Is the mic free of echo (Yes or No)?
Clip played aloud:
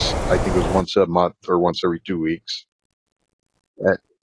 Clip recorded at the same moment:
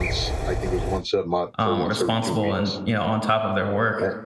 No